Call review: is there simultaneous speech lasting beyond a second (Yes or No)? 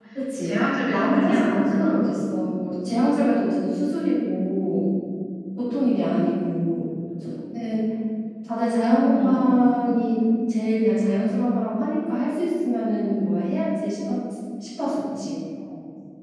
Yes